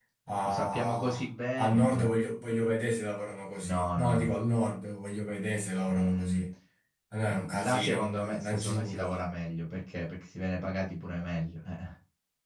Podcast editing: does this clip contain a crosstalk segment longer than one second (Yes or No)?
Yes